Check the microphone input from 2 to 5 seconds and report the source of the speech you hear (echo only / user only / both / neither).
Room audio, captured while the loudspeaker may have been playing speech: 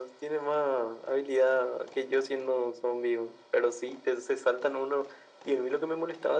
echo only